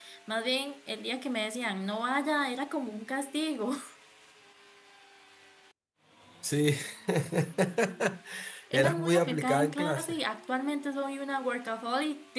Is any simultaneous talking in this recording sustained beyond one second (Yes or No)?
Yes